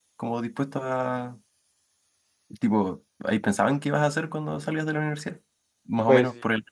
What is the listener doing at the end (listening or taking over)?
listening